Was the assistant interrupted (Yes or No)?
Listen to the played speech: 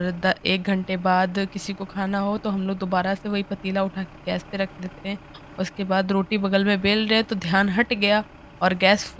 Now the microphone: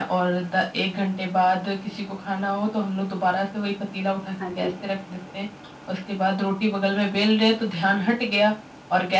Yes